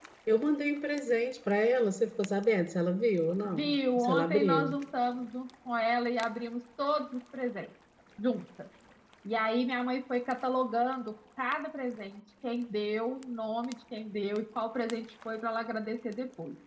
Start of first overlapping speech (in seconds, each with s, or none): 3.4 s